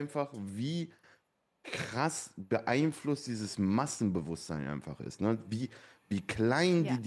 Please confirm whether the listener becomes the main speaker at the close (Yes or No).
No